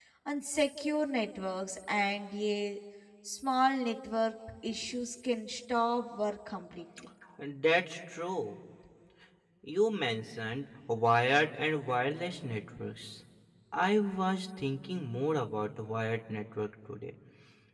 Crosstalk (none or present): none